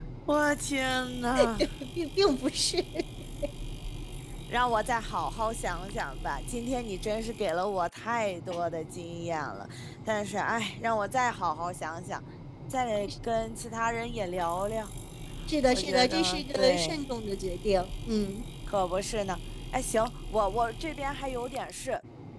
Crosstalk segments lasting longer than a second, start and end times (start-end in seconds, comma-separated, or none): 15.7-16.9